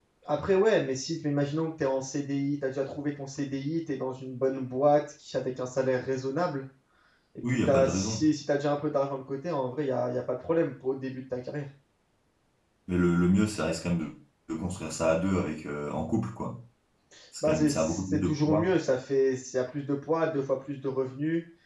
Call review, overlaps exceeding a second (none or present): present